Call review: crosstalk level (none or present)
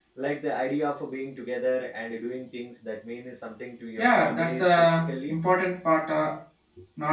present